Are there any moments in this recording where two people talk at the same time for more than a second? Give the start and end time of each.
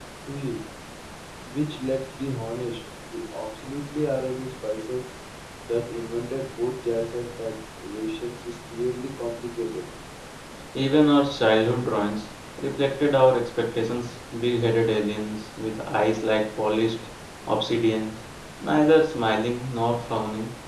none

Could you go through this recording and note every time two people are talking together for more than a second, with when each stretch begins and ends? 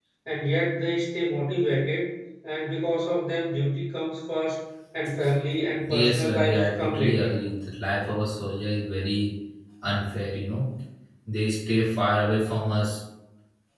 5.8-7.4

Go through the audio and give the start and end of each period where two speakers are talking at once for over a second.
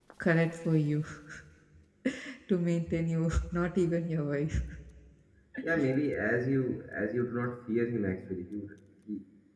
none

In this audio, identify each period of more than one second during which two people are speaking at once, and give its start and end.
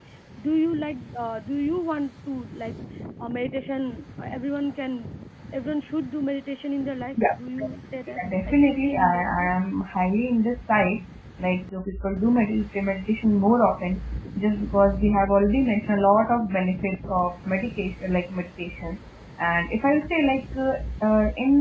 8.1-9.5

